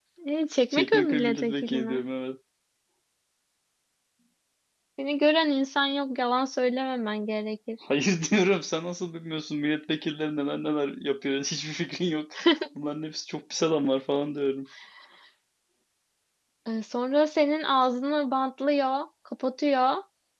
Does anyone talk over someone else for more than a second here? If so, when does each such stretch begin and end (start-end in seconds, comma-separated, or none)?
0.7-2.0